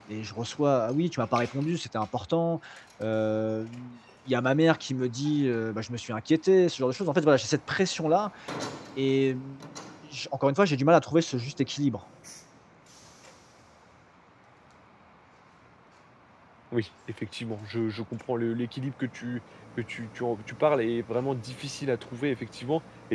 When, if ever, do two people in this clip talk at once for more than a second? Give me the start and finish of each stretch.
none

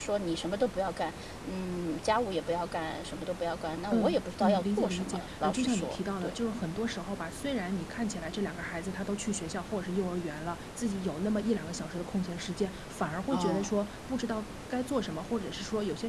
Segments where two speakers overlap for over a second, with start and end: 3.9-6.4

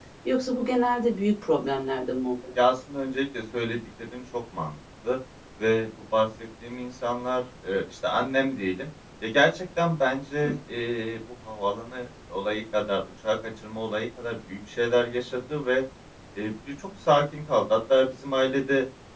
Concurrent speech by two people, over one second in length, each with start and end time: none

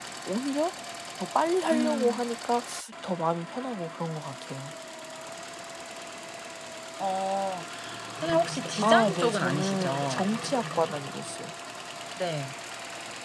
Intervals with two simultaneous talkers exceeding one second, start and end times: 8.8-10.3

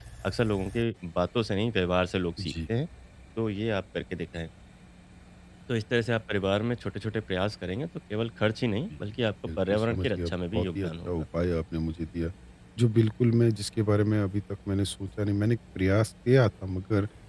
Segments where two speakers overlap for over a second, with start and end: 9.7-11.1

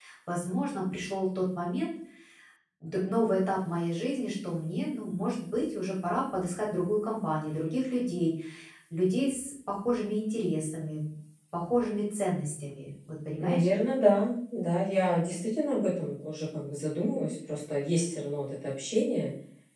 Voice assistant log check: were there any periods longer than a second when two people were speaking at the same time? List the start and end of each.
none

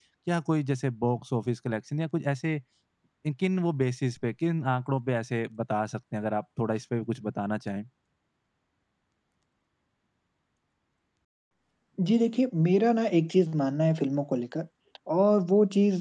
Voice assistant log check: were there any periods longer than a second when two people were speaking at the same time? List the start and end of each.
none

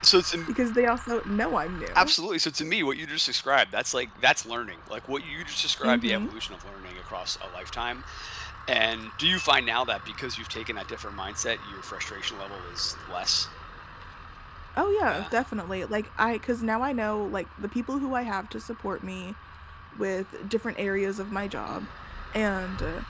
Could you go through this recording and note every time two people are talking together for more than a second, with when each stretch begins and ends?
none

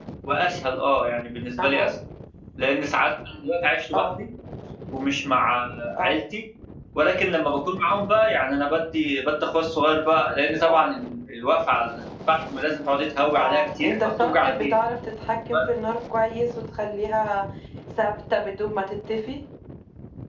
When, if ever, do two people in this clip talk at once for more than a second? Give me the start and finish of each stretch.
13.3-14.8

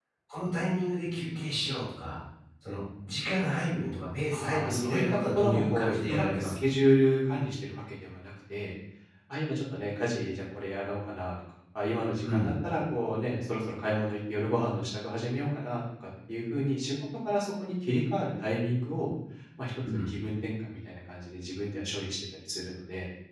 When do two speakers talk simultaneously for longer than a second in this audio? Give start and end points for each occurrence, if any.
4.3-6.7

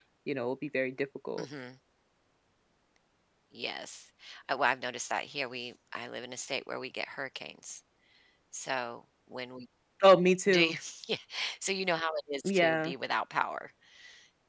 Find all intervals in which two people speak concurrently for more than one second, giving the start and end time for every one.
none

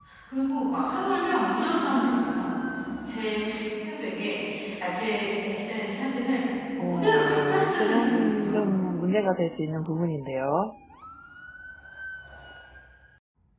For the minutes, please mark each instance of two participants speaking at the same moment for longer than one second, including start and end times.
6.8-8.8

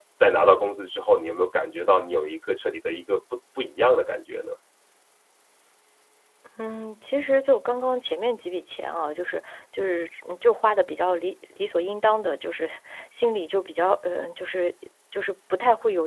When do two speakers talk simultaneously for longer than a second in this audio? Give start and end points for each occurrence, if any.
none

